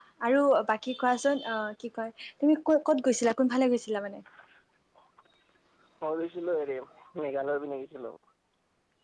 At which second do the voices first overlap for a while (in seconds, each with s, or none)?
none